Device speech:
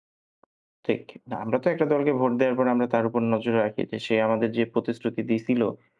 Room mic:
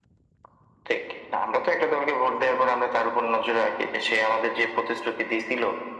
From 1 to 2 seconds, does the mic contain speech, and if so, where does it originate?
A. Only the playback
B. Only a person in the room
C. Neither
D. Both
A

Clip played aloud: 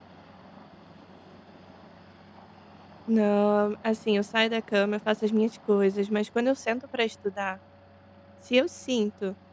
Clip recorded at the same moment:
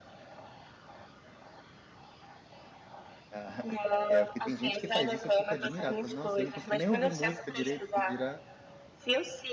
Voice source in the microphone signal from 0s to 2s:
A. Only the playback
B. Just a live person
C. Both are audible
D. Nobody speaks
D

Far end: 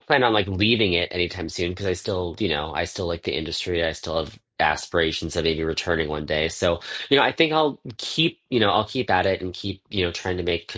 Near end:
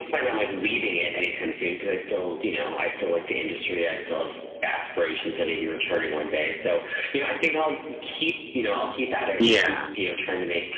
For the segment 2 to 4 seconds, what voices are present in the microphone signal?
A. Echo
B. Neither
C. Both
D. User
A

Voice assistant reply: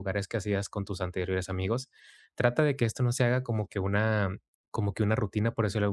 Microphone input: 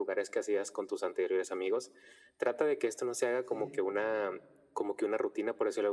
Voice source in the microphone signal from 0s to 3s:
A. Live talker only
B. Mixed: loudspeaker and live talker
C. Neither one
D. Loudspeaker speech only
D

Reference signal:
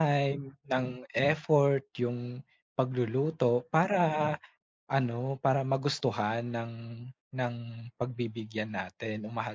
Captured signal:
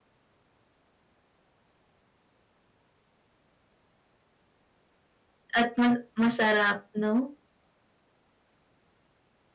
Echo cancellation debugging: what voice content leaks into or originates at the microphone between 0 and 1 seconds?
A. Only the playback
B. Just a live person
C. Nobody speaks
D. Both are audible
C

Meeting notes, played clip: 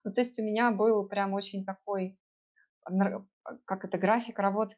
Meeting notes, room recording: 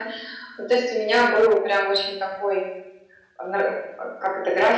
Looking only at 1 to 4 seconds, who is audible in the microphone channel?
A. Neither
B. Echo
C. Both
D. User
B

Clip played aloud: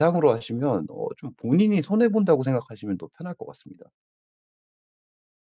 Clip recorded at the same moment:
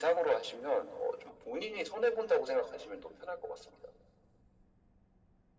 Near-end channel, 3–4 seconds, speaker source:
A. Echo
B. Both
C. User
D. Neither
A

